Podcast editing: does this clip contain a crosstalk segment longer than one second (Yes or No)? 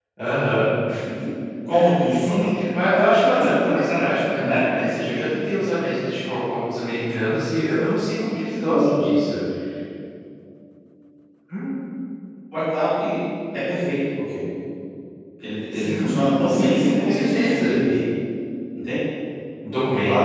Yes